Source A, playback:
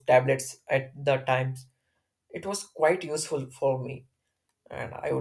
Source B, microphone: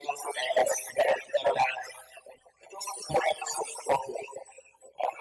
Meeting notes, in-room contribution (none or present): none